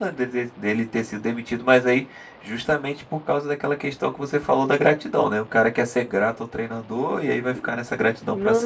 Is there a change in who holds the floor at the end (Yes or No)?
Yes